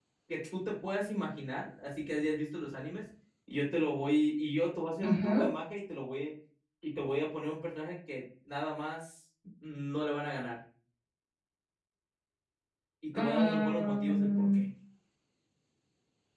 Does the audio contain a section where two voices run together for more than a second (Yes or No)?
Yes